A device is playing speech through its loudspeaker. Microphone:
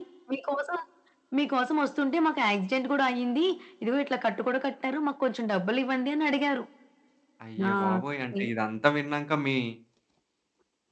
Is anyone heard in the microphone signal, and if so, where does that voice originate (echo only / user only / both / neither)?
both